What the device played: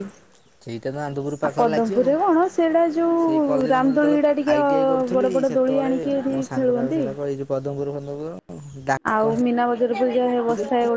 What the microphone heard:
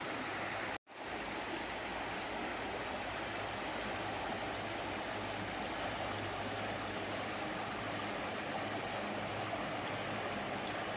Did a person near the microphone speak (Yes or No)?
No